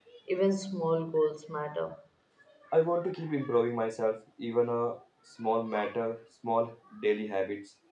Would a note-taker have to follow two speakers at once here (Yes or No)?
No